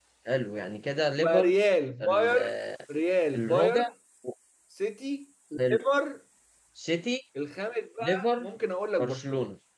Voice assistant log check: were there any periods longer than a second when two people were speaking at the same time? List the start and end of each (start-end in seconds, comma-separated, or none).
none